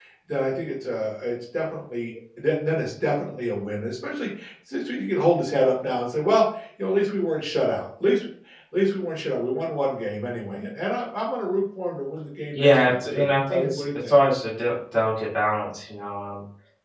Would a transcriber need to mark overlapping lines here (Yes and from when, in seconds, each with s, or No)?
Yes, from 12.5 s